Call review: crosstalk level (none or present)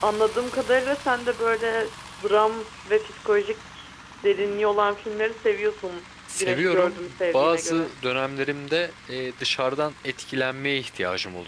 present